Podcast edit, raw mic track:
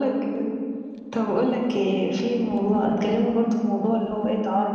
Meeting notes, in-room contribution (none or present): none